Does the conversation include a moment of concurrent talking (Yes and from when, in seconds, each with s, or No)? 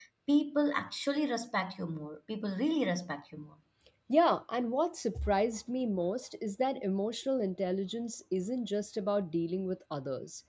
No